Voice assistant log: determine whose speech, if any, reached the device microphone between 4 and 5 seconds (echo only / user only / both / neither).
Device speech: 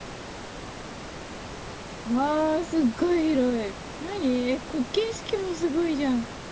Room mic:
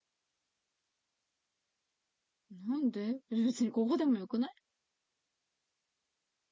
user only